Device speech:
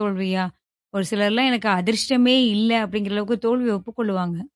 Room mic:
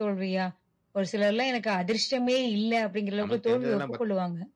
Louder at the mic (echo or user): echo